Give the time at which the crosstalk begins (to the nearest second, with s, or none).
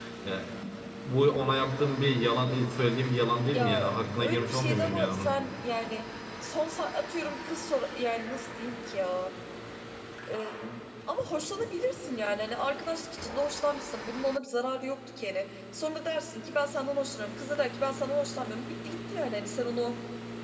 4 s